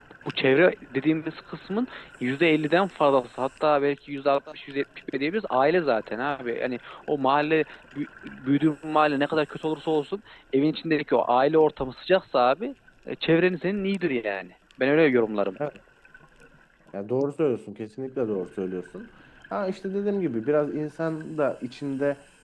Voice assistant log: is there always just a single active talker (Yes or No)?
Yes